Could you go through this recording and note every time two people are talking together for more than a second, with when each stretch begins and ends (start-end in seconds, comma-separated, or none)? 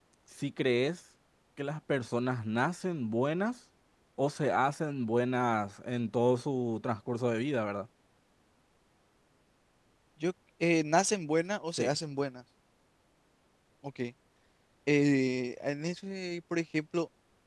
none